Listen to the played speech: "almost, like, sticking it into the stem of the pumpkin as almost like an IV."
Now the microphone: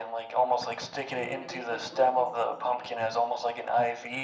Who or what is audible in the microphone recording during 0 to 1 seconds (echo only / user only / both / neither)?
echo only